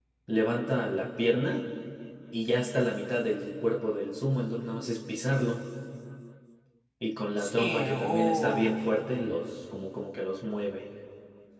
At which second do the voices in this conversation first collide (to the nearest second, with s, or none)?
7 s